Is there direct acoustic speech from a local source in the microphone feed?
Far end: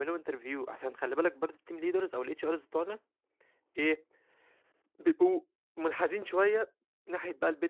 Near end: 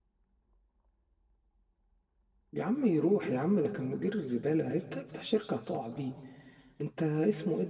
Yes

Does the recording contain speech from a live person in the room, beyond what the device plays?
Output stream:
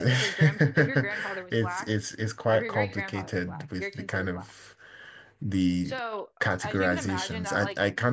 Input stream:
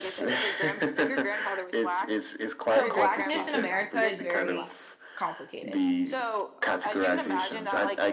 Yes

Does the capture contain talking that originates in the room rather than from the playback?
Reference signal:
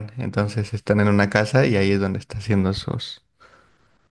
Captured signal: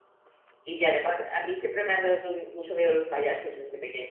Yes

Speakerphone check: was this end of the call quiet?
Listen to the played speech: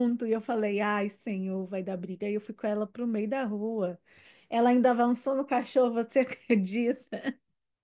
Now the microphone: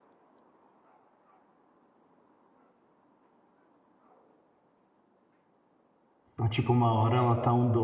No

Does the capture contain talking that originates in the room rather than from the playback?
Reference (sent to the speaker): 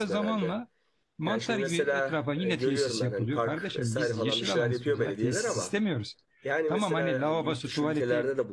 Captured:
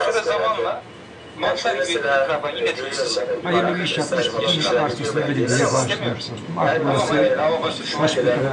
Yes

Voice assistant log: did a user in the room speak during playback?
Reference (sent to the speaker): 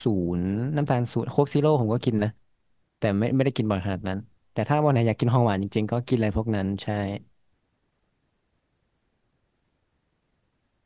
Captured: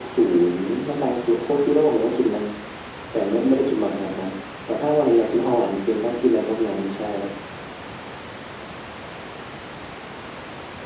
No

